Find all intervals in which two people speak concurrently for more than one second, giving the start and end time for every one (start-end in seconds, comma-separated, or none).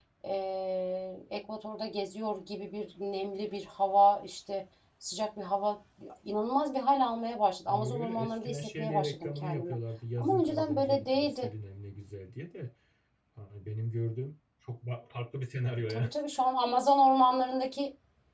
7.7-9.8, 10.2-11.5